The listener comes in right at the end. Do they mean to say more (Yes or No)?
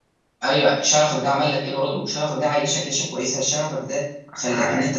No